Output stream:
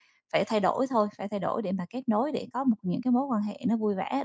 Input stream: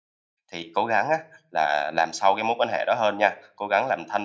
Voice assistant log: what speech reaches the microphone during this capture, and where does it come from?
user only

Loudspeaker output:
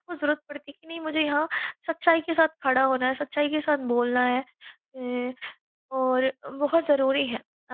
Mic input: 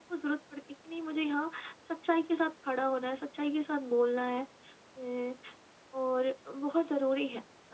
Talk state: echo only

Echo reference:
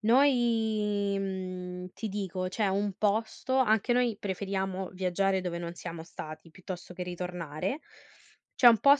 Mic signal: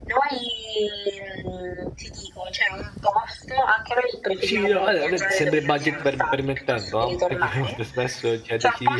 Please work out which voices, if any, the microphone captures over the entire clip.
both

